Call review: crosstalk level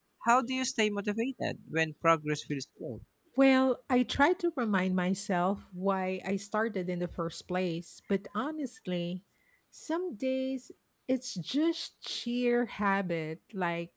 none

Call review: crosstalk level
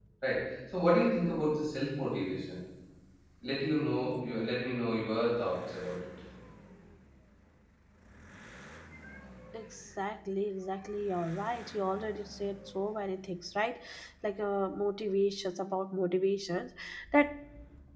none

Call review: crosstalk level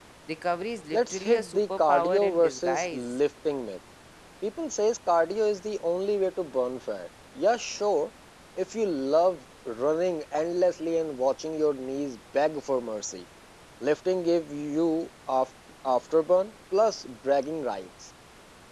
present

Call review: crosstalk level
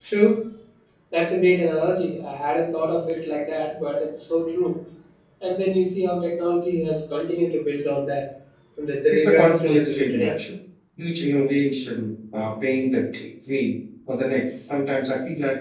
present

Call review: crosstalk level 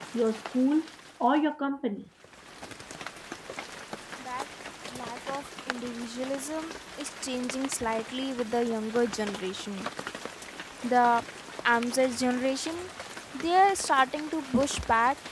none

